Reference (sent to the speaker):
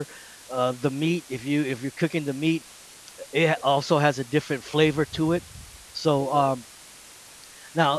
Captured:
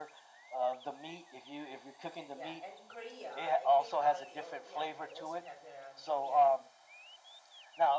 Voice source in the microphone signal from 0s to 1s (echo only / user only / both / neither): echo only